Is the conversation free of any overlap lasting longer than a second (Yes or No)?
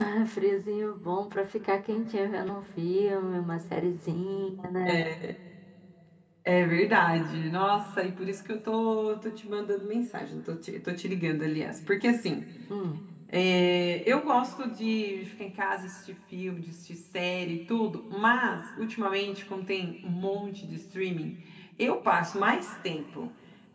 Yes